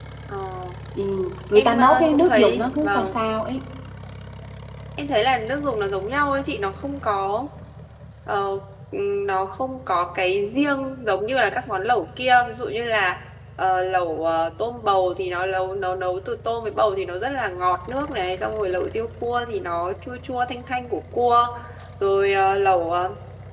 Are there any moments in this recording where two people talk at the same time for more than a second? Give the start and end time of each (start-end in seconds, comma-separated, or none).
1.6-3.2